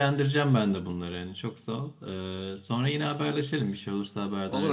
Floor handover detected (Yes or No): Yes